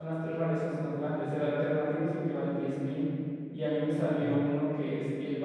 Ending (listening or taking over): listening